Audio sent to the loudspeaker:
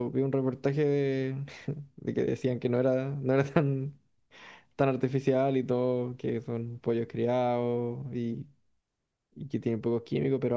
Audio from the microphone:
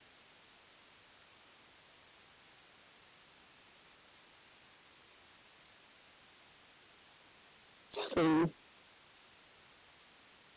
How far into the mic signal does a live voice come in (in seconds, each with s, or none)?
8.0 s